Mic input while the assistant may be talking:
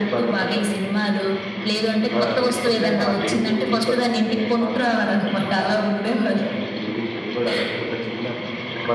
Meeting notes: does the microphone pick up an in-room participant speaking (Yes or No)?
No